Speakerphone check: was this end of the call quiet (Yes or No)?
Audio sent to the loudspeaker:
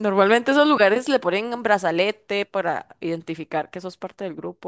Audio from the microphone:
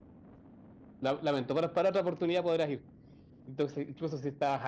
No